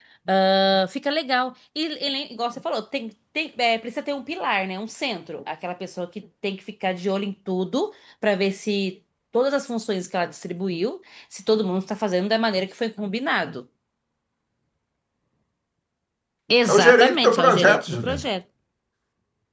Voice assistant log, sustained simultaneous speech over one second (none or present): present